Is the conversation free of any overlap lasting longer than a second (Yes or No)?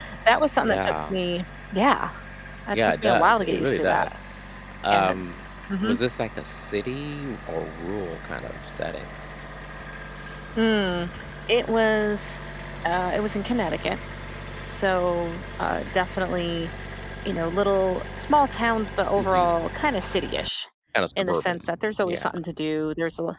No